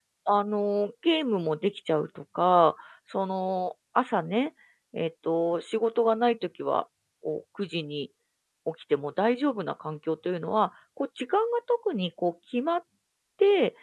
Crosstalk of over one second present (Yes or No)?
No